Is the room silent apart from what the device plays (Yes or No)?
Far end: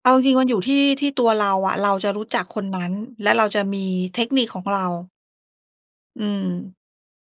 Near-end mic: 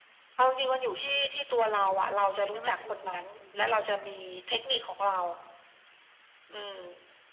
No